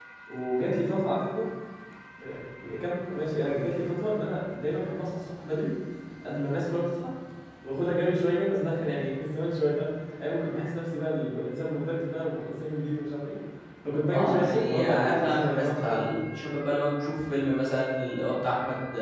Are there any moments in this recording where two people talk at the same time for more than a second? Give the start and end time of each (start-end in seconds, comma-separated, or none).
14.1-16.2